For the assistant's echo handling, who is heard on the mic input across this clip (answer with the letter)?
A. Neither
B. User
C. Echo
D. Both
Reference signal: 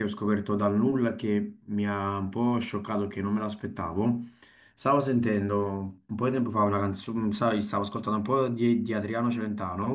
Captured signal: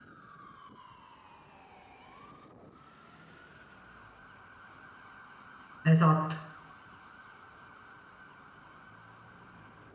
B